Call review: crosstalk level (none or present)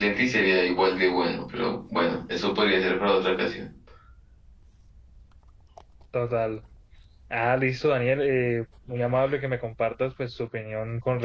none